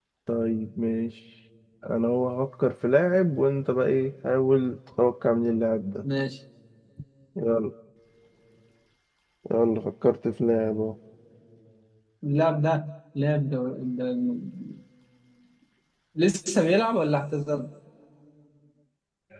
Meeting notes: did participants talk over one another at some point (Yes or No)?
No